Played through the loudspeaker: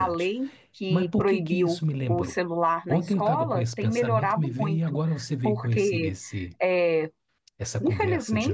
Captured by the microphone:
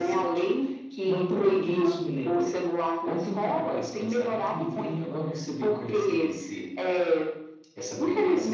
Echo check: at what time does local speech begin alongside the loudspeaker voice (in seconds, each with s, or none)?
none